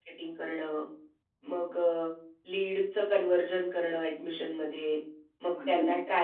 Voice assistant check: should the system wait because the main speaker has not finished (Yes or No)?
Yes